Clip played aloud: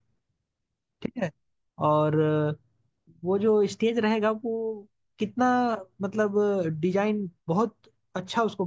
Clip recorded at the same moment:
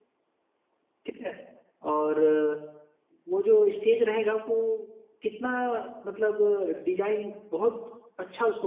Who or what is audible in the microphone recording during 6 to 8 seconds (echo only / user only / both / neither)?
echo only